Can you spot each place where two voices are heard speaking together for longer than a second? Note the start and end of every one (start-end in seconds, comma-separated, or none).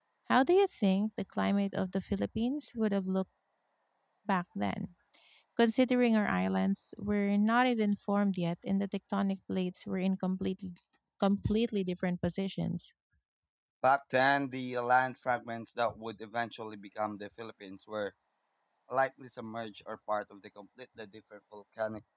none